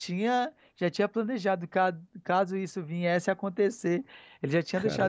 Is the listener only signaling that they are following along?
Yes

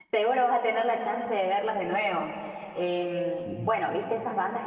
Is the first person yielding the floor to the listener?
No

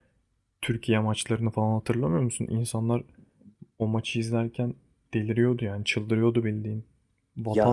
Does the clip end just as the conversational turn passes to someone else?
No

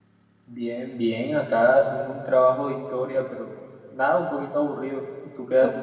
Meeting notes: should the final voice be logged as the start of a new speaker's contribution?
Yes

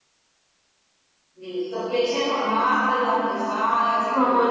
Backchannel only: No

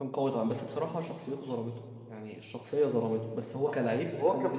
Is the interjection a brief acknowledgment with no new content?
No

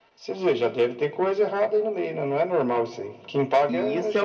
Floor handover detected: Yes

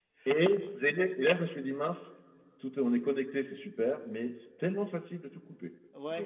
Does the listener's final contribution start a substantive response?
Yes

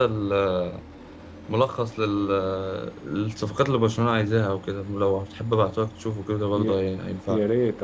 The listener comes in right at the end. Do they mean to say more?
Yes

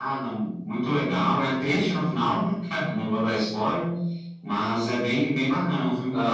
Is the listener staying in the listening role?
No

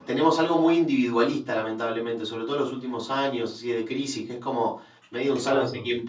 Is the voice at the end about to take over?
No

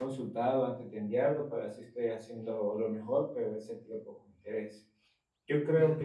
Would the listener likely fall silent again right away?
Yes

